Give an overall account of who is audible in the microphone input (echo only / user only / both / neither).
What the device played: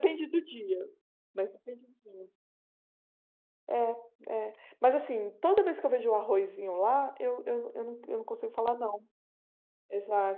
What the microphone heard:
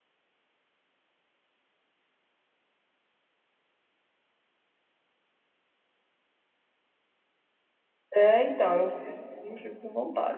user only